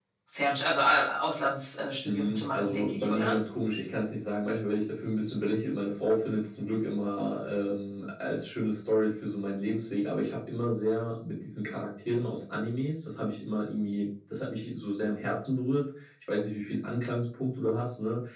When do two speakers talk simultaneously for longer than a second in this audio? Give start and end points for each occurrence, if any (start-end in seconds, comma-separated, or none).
2.0-3.4